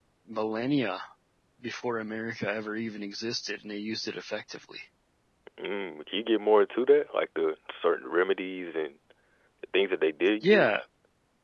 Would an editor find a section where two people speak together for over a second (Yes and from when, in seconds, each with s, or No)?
No